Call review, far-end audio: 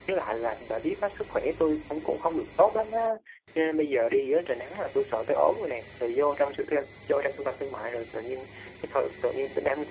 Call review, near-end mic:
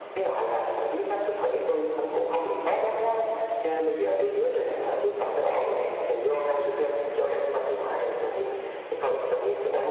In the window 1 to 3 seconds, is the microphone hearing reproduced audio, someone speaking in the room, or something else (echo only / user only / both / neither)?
echo only